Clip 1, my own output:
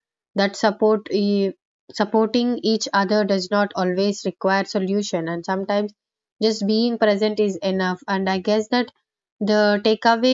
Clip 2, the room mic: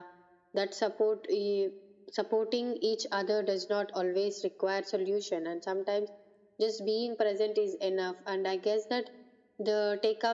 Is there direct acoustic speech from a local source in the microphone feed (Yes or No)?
No